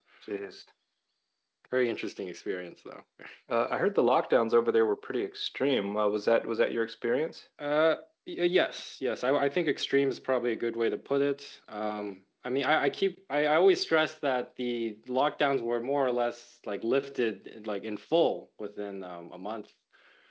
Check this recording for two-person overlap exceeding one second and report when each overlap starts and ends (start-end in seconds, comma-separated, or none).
none